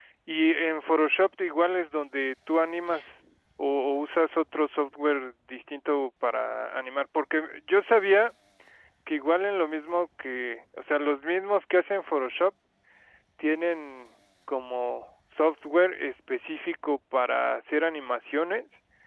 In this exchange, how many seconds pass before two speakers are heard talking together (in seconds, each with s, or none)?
none